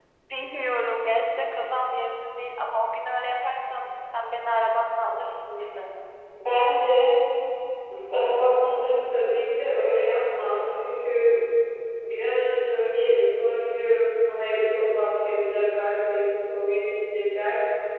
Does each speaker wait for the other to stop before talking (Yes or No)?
Yes